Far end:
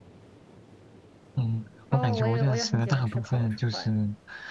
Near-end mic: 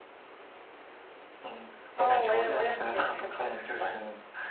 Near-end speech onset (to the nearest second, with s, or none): none